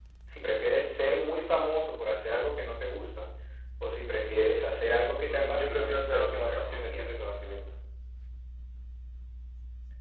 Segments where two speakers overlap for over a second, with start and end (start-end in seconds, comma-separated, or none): 5.2-7.1